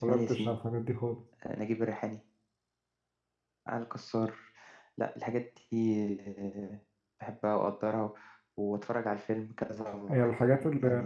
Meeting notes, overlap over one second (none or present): none